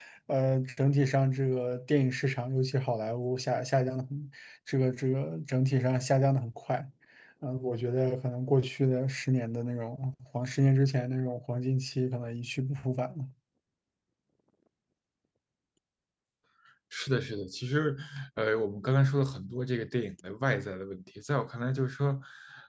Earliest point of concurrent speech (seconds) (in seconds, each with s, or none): none